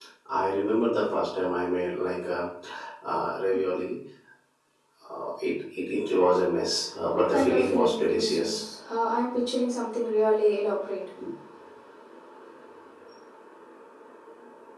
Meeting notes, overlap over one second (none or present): present